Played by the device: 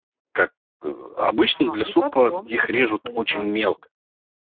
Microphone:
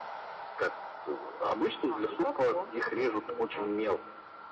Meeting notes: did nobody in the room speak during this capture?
Yes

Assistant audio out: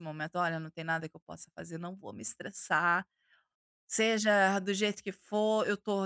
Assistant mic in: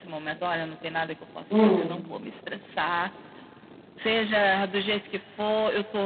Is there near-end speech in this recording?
Yes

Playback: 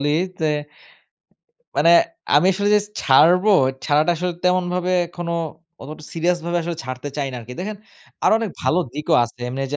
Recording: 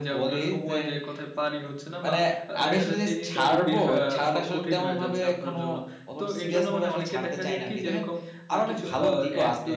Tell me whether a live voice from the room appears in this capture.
Yes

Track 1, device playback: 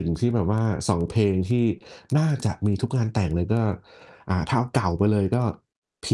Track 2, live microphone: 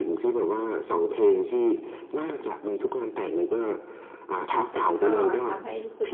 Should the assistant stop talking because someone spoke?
Yes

